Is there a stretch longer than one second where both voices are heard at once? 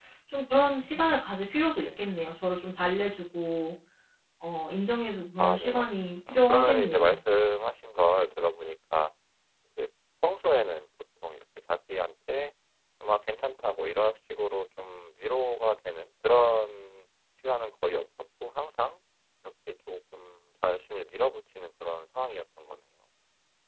Yes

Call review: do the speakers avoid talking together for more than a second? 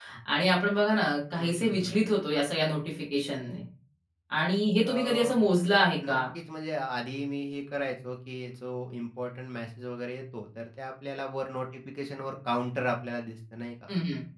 Yes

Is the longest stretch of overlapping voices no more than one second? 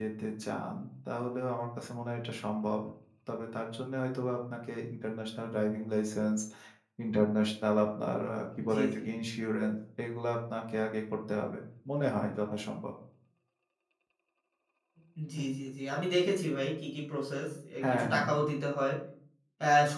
Yes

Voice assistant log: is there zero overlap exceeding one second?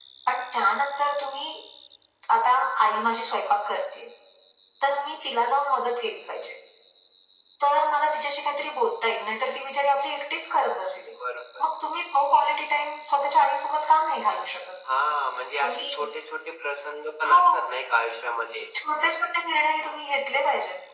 Yes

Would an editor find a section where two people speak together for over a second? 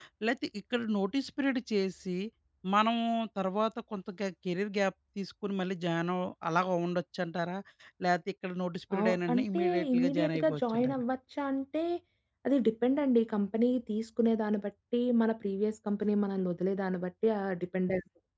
Yes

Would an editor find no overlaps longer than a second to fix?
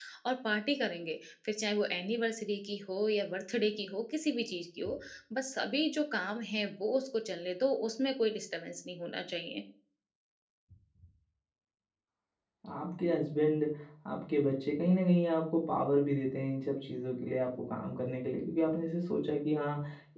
Yes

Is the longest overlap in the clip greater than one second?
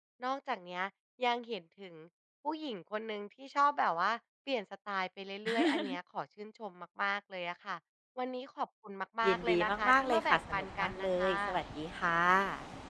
Yes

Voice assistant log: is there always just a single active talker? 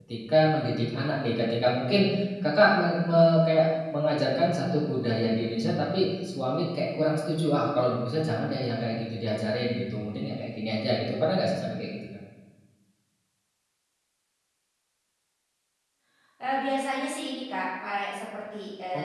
Yes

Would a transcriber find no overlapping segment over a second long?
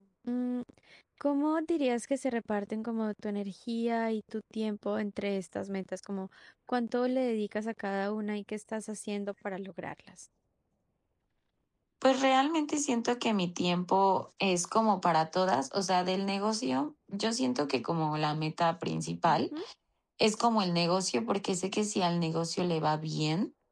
Yes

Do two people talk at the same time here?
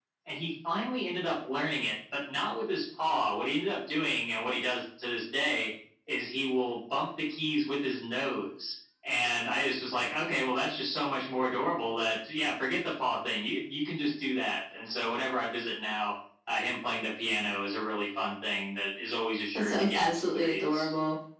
Yes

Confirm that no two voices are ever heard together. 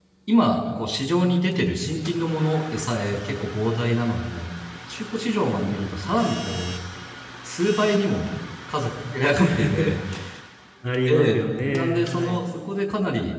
No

